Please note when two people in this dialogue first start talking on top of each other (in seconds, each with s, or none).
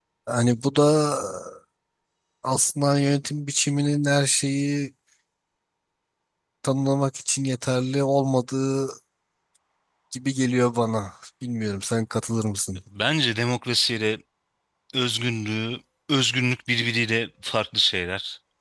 none